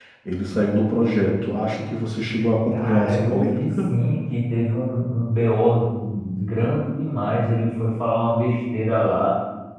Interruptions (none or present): present